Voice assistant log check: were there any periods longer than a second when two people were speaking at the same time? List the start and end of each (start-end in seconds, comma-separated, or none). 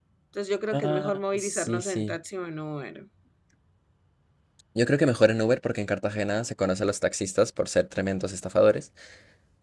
0.7-2.2